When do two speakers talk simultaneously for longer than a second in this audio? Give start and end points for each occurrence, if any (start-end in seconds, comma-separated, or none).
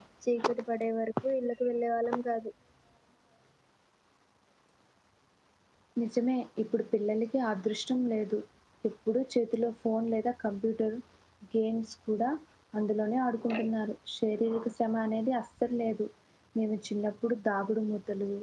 none